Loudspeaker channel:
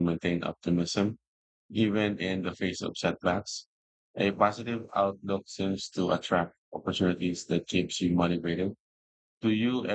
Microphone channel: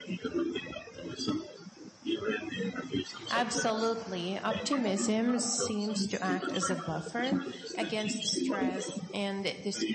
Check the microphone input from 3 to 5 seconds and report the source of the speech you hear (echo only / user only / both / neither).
both